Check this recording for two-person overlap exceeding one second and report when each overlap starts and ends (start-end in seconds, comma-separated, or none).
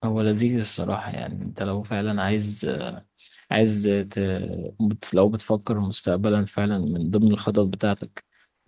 none